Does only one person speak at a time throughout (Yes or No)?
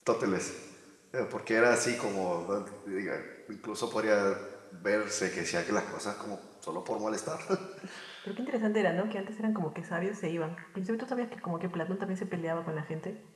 Yes